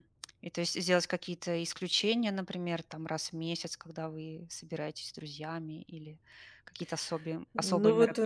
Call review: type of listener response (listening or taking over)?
taking over